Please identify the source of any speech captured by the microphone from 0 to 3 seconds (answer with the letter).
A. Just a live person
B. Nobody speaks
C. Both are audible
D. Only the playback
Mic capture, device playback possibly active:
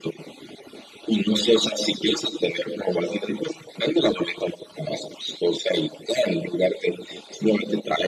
D